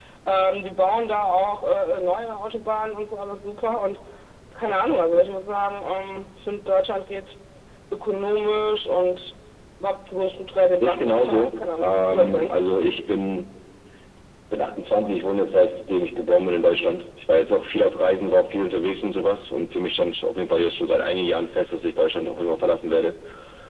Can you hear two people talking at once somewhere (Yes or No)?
Yes